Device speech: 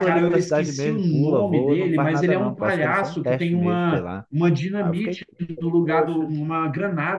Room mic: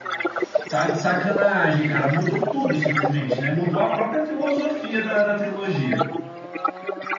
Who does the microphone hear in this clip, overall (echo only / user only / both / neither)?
both